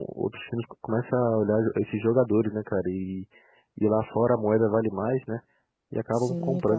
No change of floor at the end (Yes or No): No